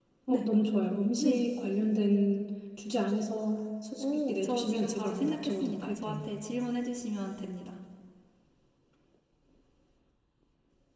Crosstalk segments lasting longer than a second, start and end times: 4.0-6.2

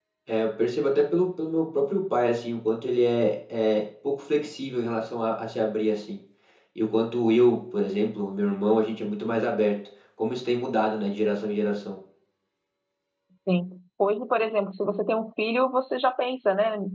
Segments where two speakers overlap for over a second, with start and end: none

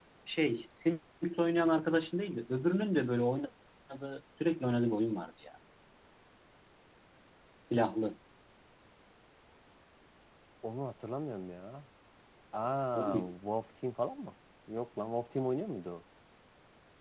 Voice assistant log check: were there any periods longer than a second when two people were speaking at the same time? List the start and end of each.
none

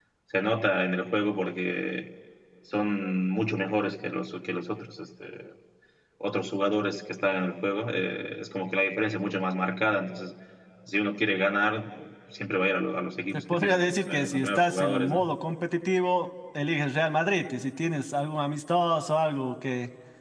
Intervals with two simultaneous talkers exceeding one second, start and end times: 13.3-15.3

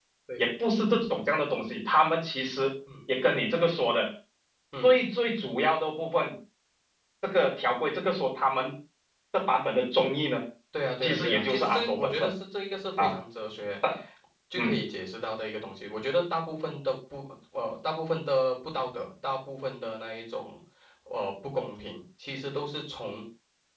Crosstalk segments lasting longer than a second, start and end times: 11.0-12.3

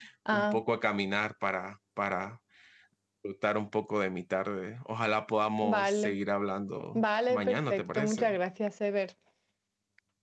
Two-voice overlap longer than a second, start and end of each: 6.9-8.4

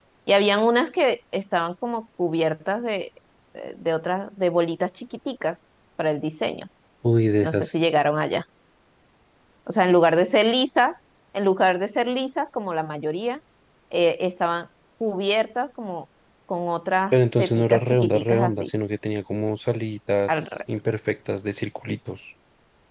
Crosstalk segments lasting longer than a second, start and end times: 17.1-18.7

